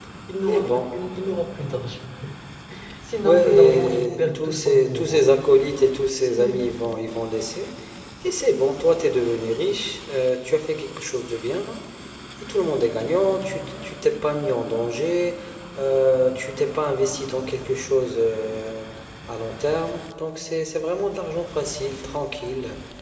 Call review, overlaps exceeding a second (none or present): present